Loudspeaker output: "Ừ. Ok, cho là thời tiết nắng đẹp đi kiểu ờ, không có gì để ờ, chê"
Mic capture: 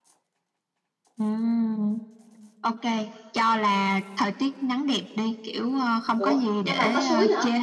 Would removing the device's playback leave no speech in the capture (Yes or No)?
No